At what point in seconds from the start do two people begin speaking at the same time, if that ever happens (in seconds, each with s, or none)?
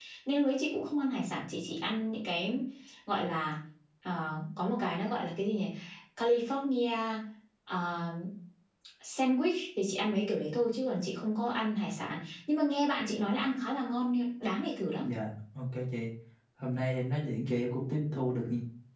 none